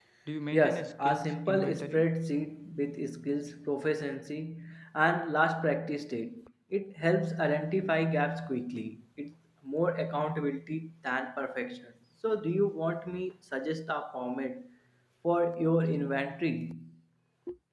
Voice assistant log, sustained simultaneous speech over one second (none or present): present